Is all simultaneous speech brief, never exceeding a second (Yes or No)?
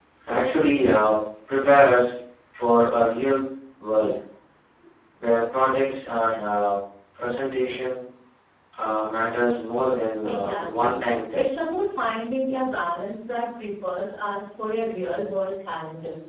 No